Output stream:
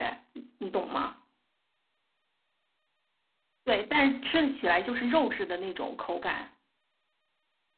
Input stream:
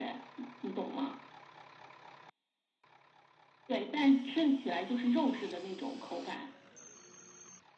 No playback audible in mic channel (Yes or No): No